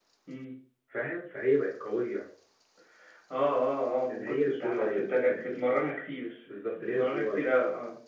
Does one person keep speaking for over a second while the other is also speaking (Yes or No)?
Yes